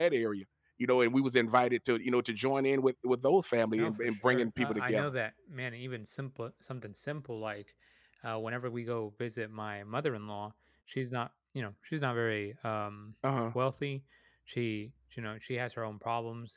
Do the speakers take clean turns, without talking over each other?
No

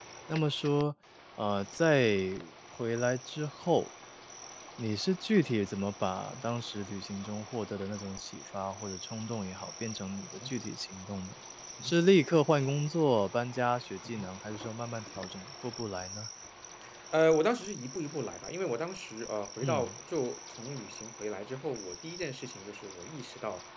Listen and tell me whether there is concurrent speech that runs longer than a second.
No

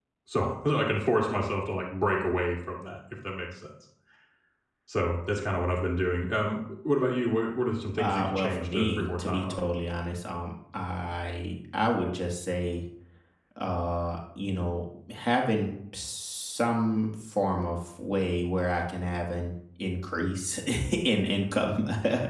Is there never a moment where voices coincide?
No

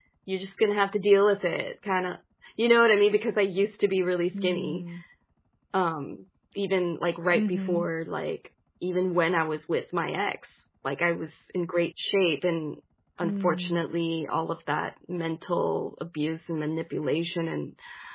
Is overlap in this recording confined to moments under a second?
Yes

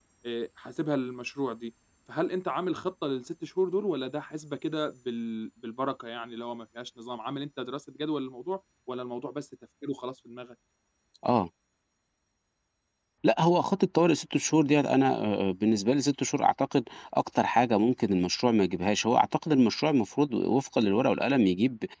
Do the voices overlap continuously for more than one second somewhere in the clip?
No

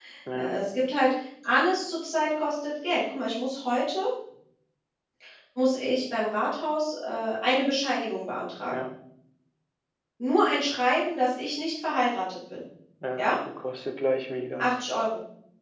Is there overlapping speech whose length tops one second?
No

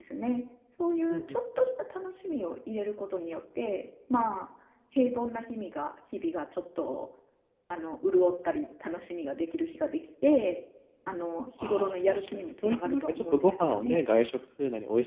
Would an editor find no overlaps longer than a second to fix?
No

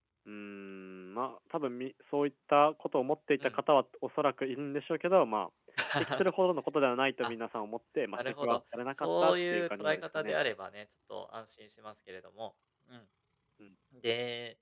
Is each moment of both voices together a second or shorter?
No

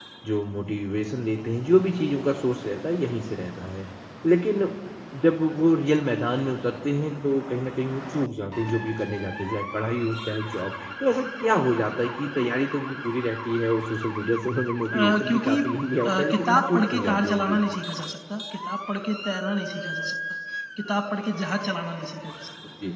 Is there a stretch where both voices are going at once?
Yes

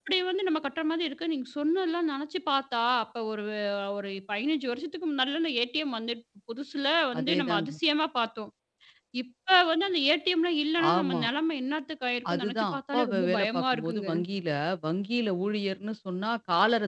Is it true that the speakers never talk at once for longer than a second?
No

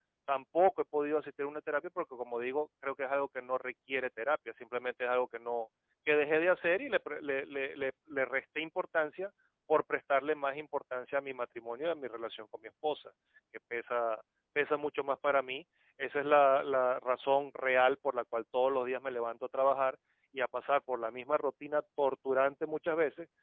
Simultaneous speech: No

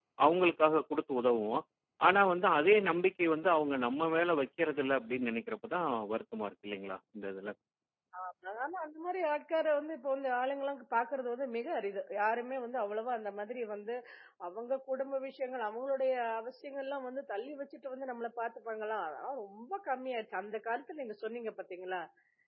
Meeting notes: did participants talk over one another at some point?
No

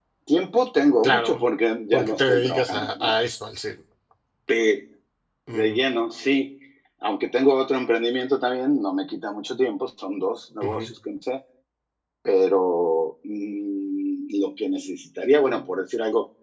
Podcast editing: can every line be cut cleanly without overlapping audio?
No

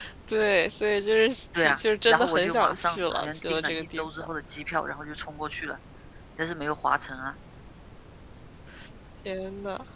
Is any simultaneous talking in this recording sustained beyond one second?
Yes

